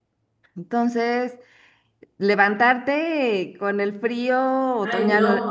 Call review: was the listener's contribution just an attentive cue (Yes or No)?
No